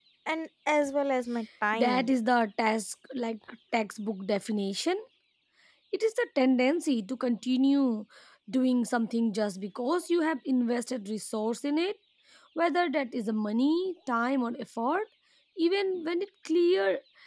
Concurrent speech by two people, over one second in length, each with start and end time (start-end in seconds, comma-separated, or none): none